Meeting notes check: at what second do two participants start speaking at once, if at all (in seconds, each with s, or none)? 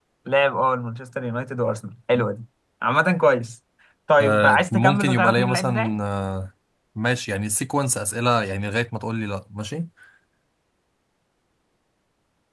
4.2 s